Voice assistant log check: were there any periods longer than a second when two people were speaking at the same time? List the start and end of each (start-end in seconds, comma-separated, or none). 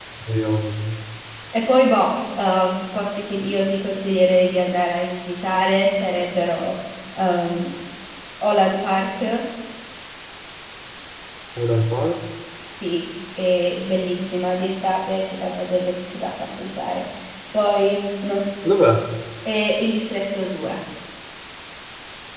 none